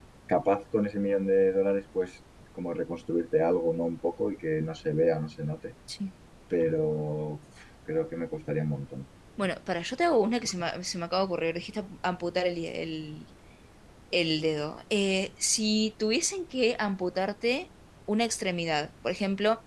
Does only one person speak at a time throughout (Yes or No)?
Yes